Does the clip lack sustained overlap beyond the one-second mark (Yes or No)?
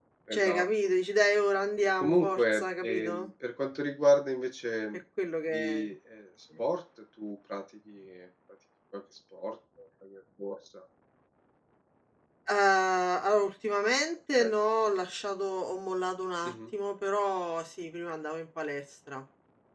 No